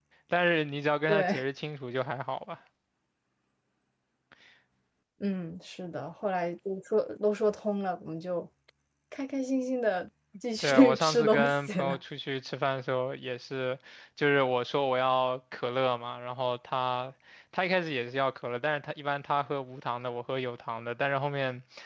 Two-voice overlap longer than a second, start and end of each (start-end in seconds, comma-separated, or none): 10.6-12.0